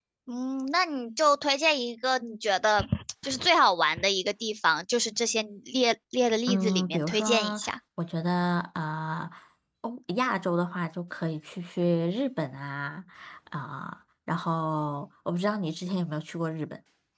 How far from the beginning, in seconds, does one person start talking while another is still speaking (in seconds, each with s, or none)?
6.5 s